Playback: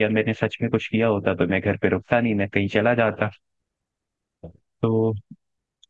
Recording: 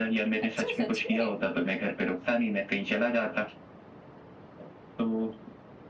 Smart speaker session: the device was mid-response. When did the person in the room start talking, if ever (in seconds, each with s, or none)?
0.4 s